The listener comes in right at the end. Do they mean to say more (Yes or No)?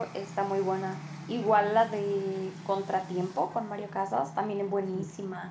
No